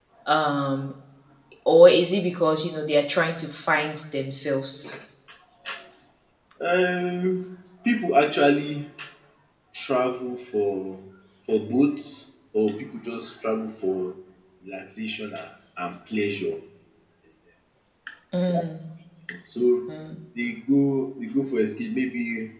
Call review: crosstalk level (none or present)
none